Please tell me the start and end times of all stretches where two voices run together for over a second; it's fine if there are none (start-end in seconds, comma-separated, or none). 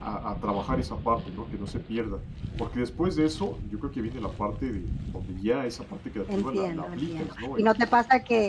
6.3-7.6